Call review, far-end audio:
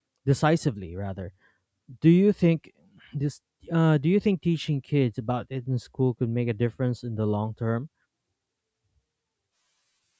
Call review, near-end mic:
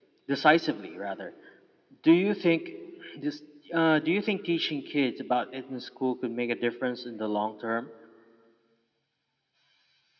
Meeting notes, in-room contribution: none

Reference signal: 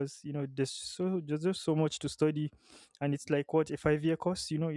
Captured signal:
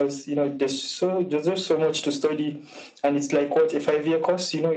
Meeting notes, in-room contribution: none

